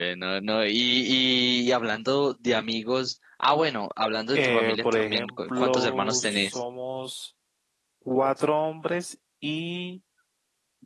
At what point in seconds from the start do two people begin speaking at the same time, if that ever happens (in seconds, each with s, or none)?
4.3 s